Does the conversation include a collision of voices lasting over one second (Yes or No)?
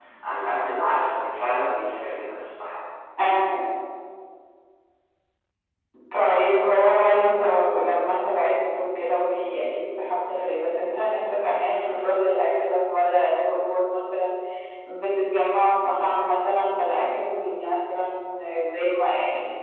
No